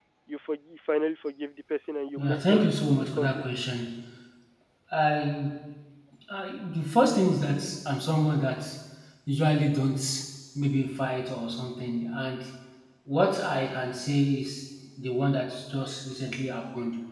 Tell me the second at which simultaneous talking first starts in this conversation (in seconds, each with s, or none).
2.2 s